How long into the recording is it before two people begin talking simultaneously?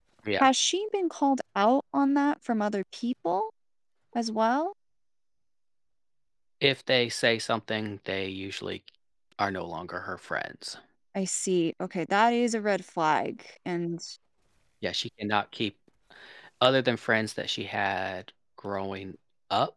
none

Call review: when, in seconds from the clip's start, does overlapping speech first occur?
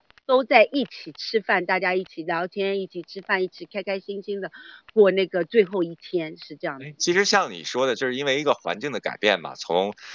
none

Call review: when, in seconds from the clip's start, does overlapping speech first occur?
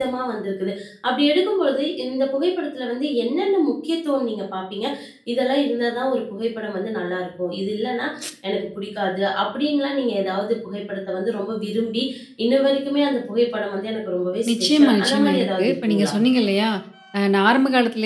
14.4 s

